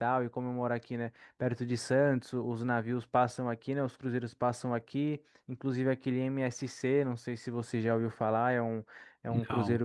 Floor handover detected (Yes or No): No